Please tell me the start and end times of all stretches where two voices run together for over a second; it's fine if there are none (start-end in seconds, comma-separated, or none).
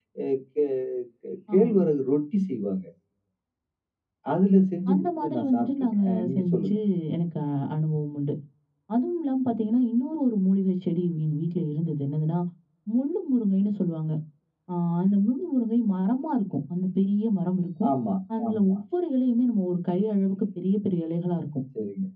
4.9-6.8